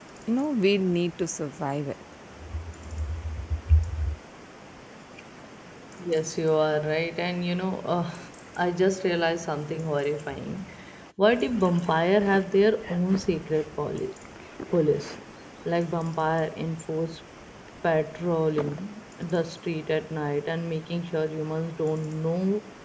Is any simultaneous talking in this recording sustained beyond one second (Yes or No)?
No